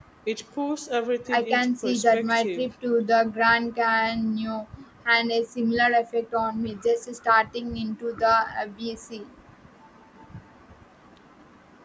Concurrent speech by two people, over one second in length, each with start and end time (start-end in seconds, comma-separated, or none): 1.3-2.6